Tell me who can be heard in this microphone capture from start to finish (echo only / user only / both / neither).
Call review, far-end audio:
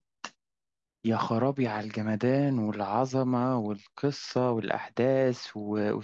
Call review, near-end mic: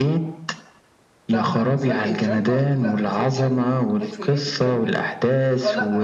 both